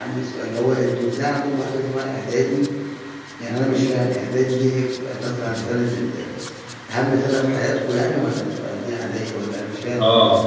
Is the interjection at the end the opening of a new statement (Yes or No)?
Yes